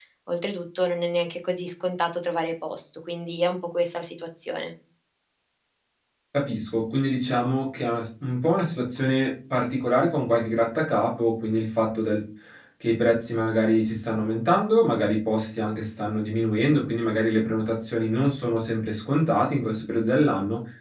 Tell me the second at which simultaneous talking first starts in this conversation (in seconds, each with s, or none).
none